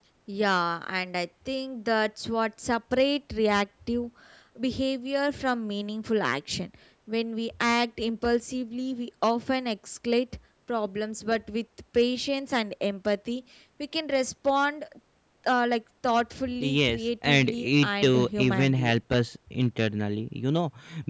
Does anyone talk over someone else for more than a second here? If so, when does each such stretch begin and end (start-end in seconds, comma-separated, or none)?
16.6-18.9